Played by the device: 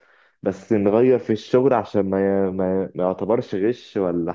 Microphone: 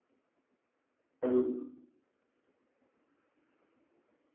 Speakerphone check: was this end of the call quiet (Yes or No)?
No